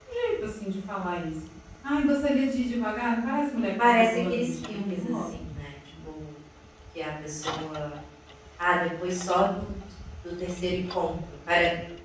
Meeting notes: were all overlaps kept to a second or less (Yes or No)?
No